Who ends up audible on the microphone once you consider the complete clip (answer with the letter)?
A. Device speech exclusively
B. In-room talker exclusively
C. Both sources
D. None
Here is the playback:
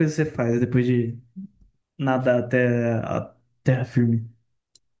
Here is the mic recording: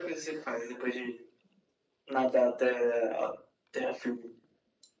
A